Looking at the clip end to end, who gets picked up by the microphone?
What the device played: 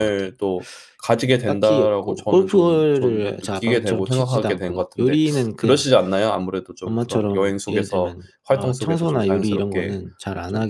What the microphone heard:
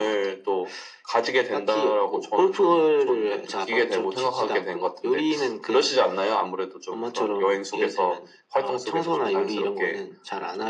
echo only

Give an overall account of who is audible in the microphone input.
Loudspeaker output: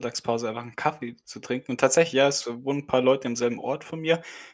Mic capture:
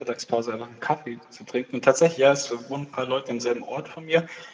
echo only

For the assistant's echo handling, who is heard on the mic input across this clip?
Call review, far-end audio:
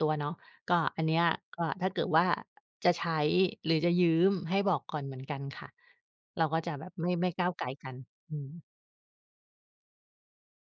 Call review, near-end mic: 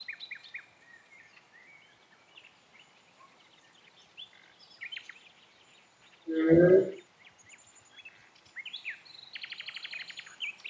user only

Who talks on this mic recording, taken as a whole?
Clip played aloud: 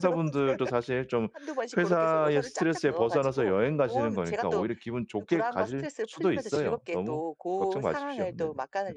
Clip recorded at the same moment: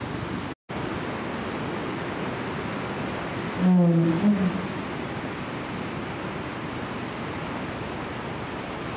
user only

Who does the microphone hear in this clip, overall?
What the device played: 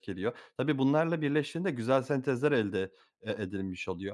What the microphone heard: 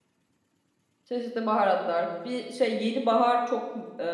user only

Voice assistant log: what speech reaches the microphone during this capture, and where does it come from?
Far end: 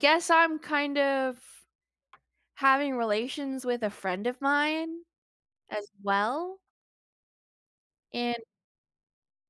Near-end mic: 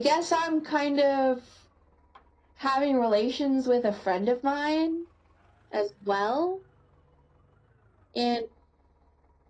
echo only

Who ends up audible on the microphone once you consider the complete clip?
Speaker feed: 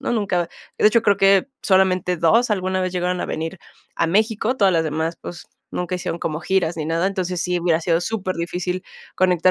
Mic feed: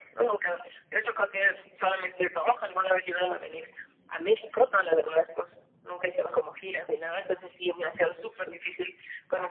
echo only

